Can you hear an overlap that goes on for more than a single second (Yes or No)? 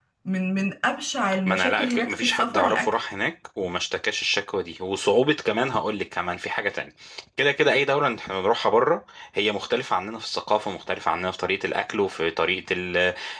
Yes